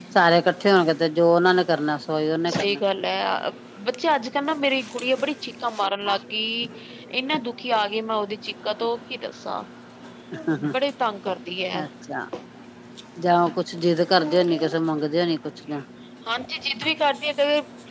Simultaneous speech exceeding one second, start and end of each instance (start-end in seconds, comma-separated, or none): none